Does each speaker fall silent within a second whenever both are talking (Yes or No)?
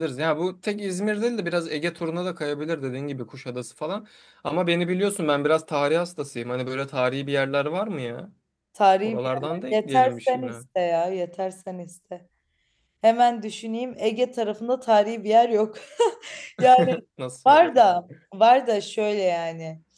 No